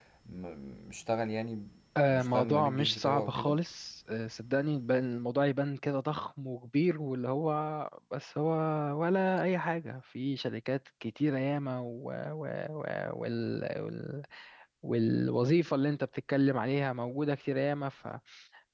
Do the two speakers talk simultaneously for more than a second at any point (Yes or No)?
Yes